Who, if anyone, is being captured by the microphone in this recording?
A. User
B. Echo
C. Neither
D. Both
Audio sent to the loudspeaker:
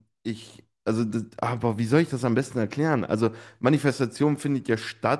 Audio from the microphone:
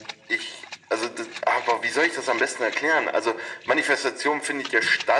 B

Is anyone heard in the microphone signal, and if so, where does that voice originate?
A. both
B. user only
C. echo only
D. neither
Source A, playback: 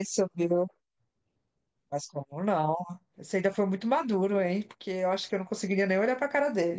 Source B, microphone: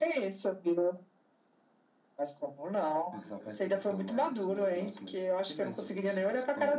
A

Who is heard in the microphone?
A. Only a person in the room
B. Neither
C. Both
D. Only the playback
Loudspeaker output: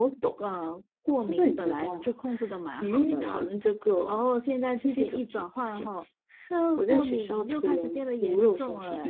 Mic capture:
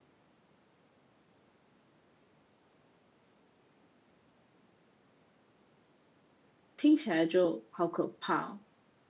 A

